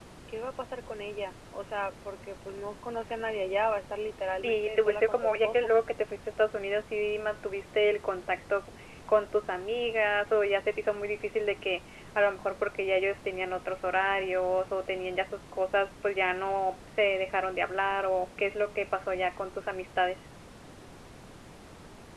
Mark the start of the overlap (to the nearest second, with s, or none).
4 s